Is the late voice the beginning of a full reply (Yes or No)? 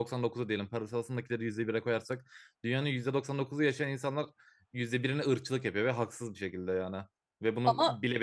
No